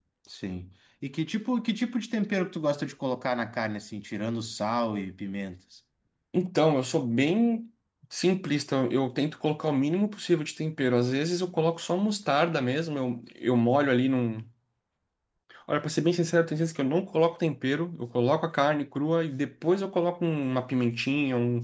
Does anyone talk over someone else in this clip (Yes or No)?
No